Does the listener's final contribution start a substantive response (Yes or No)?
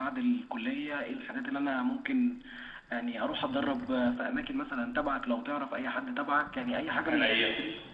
No